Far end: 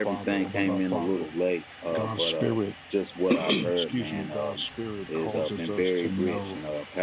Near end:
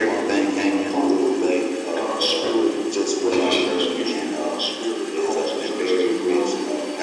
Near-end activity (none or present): none